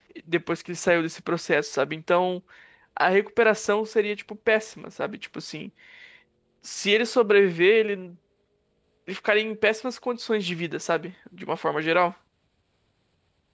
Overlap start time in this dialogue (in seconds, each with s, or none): none